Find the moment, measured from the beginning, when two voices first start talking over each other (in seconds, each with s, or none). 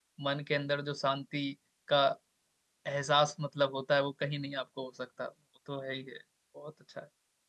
none